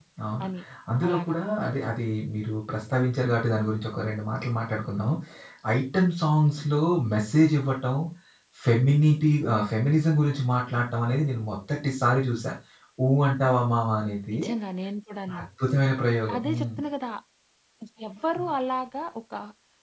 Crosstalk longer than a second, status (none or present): none